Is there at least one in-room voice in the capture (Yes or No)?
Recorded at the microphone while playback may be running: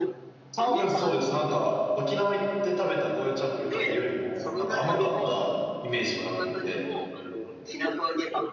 Yes